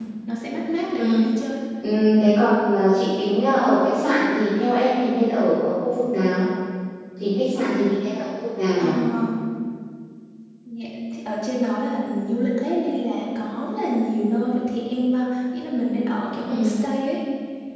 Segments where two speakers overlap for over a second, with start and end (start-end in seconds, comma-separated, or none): none